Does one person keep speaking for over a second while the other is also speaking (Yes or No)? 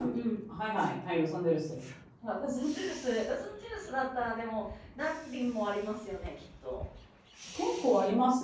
No